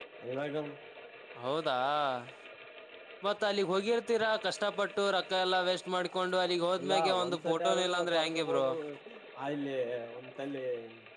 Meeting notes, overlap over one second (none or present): present